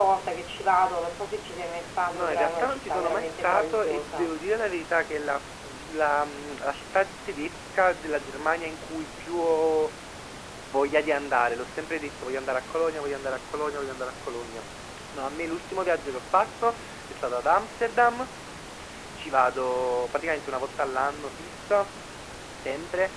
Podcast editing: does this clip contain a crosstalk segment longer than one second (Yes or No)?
Yes